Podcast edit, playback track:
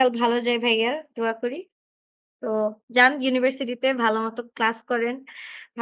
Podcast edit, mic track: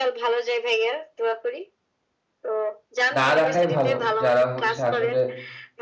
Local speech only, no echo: না রাখাই ভালো। যারা হচ্ছে আসলে

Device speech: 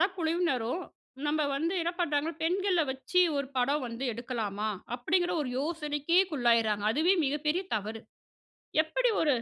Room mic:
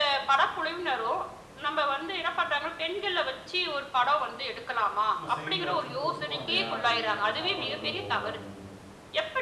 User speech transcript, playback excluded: சும்மா சைட்ல வச்சிட்டு தொட்டுப்போம், இல்லயா! அப்பிடி அந்த சாப்பாடு உள்ளே போகட்டும், அப்பிடின்னு.

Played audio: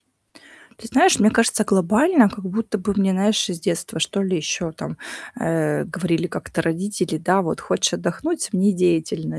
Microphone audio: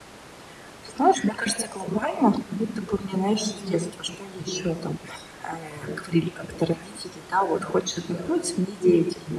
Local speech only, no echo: Понимаю.

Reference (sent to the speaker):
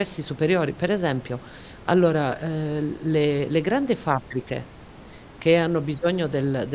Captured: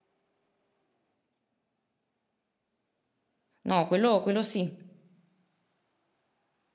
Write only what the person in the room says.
No, quello quello sì.

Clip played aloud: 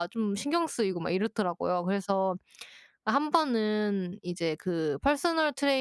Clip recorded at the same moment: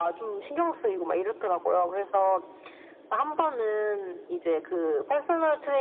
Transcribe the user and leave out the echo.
none

